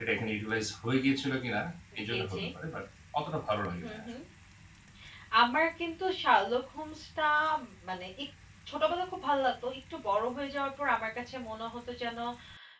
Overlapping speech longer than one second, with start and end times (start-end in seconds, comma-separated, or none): none